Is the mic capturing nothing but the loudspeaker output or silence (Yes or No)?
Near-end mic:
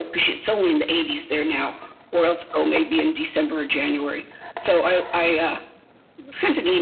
Yes